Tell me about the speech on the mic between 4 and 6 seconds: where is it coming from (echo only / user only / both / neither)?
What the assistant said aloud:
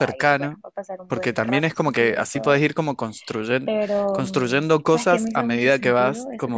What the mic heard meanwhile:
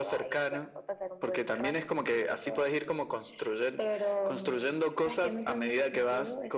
echo only